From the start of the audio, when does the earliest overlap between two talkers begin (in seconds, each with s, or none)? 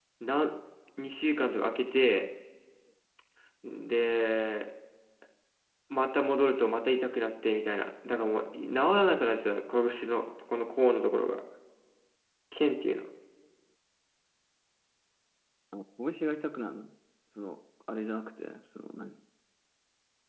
none